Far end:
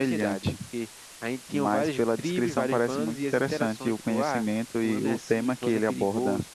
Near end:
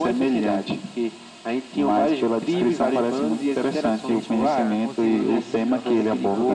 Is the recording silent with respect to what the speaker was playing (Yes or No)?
No